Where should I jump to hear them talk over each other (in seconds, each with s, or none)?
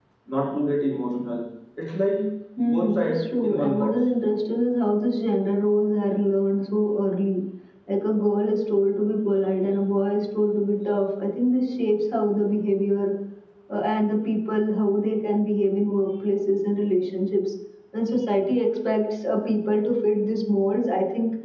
2.7 s